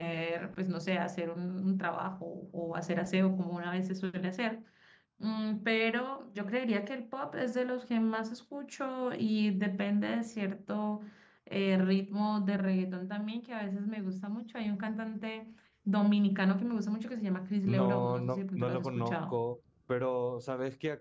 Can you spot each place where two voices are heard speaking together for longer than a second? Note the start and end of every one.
17.6-19.4

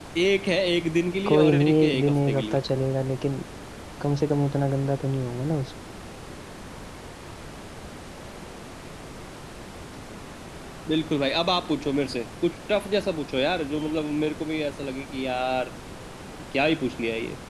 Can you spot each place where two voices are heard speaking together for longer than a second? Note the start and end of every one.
1.3-2.6

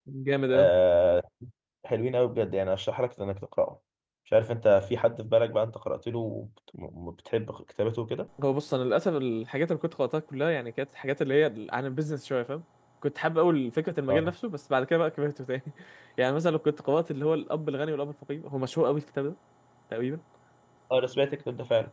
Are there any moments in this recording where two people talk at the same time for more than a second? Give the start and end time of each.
none

